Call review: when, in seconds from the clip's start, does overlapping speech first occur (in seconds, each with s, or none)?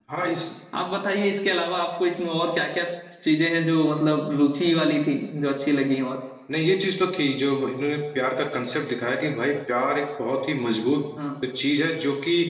none